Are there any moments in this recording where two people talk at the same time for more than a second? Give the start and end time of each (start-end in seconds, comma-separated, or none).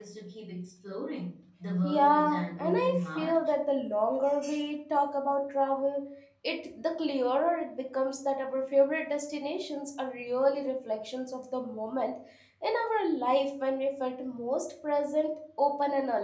1.8-3.5